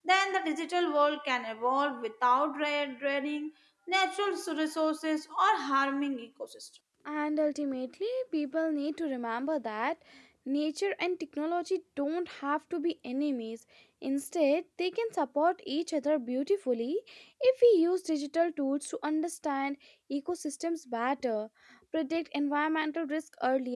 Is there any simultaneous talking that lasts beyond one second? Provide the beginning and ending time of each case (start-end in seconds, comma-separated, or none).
none